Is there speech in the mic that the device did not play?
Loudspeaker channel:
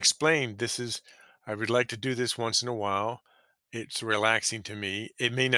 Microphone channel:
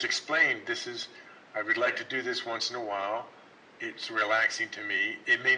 Yes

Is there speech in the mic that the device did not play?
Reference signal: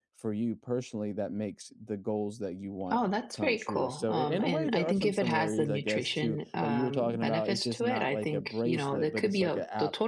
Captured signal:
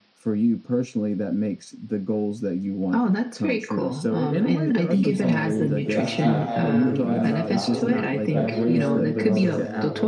Yes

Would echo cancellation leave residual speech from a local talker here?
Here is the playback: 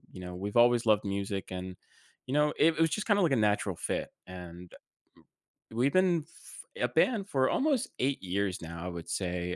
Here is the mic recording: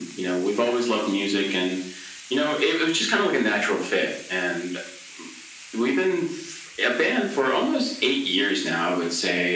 No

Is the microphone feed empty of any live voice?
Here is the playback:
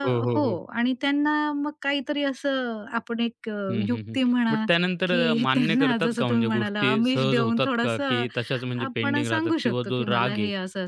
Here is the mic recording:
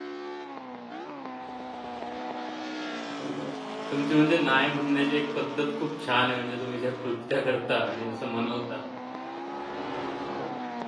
No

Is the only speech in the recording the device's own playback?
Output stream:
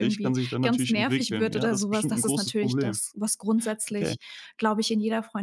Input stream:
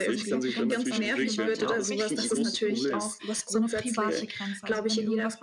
No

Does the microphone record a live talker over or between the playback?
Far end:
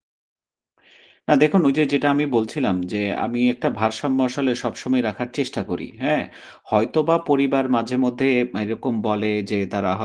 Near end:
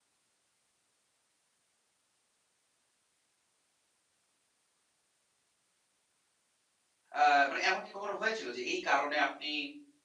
Yes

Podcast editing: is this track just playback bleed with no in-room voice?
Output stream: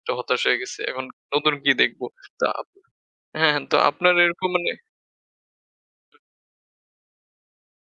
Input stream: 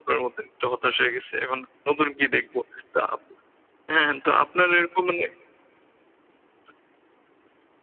Yes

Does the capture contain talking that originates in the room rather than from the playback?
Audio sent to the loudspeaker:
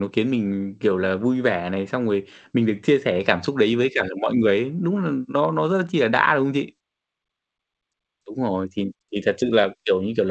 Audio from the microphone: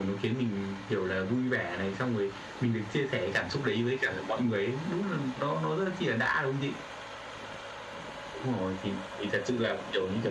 No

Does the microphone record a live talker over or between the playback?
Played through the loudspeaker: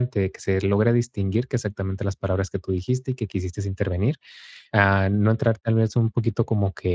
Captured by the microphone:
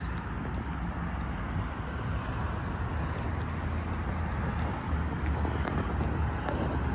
No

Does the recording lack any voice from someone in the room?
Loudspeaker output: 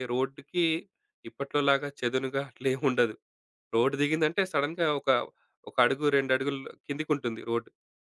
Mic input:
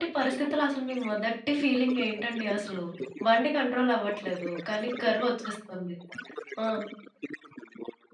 No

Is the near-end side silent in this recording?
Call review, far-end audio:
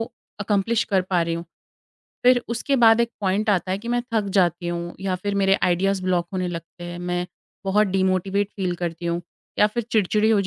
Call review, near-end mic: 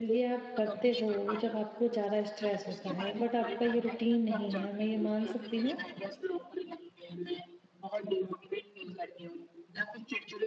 No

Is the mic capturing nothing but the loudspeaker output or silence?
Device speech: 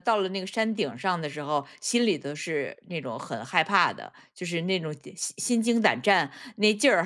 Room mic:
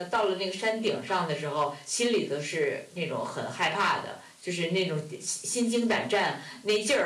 Yes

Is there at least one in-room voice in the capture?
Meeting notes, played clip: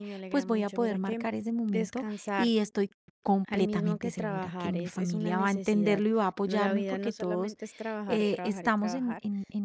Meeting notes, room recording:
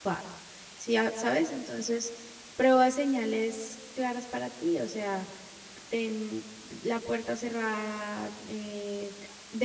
Yes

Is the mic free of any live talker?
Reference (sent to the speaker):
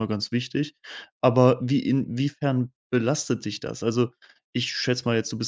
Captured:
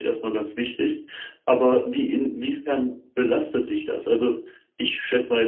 Yes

